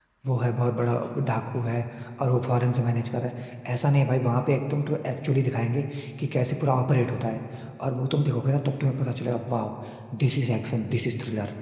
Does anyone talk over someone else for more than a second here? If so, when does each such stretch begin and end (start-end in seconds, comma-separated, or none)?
none